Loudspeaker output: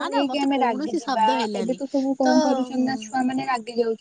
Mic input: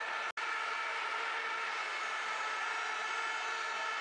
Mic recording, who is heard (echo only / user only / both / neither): neither